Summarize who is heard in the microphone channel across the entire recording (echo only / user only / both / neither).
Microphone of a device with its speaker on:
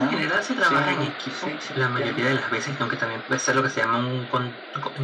echo only